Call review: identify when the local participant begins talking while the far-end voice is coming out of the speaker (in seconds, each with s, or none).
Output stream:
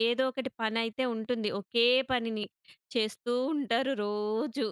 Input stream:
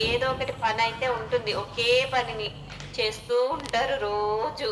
none